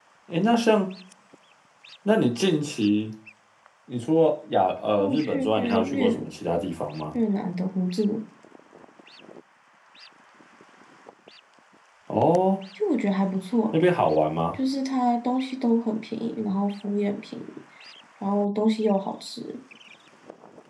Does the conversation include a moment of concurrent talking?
Yes, from 5.0 s

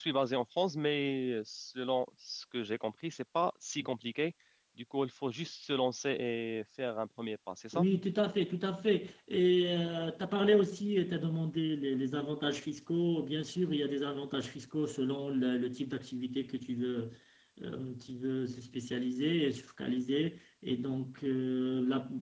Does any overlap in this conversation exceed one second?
No

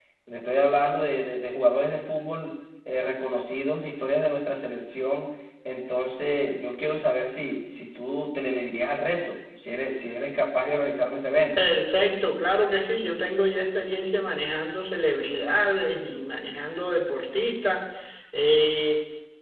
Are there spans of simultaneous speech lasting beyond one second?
No

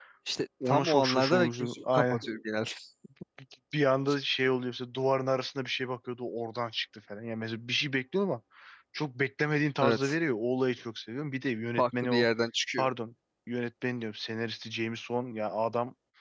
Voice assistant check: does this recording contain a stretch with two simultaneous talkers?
Yes, from 0.7 s

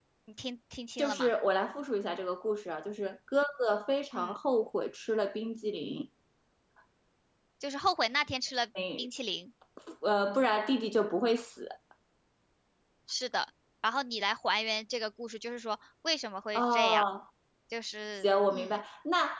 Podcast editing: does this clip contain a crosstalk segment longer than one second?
No

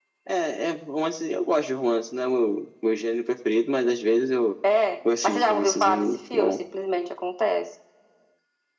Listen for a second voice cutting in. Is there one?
Yes, from 5.2 s

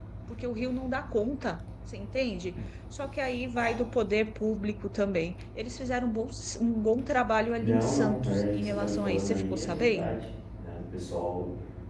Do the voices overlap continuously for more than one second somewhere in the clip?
Yes, from 7.6 s

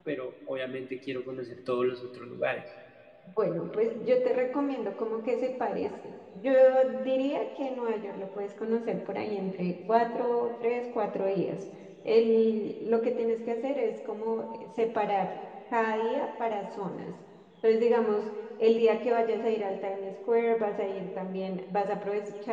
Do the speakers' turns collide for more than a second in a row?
No

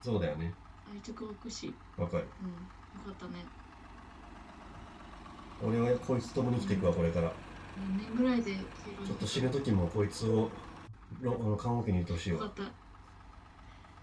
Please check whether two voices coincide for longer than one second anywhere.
No

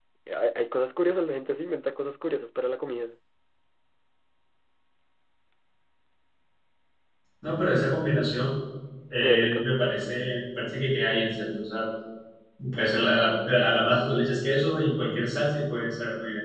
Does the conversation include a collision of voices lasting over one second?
No

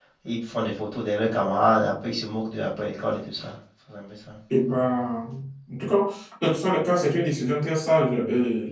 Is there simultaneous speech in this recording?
No

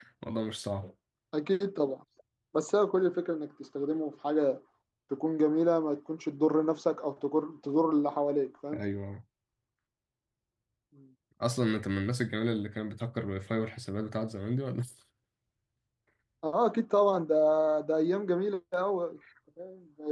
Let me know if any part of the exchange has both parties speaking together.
No

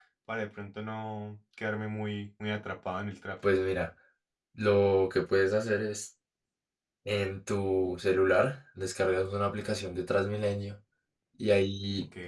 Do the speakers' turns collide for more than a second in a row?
No

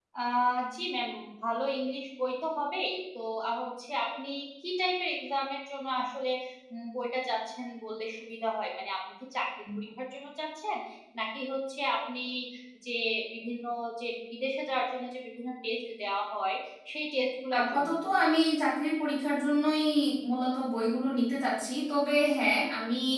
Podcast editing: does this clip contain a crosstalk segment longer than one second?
No

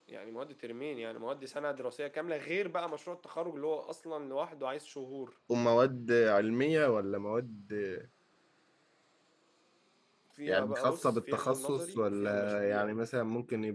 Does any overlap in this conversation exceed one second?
Yes, from 10.5 s

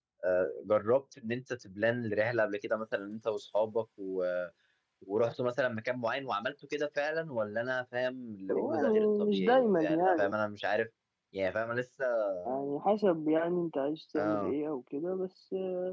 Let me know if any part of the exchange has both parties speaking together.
Yes, from 8.5 s

